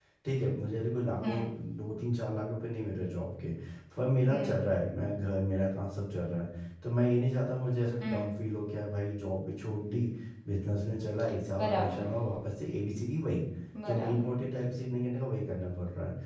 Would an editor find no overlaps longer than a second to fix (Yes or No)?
Yes